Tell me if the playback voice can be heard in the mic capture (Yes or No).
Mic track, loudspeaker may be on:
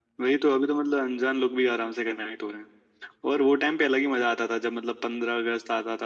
Yes